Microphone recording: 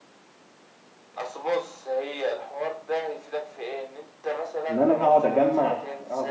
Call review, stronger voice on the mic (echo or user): user